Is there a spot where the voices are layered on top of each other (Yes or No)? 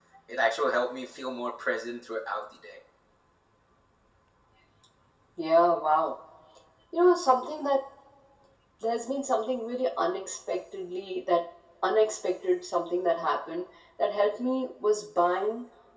No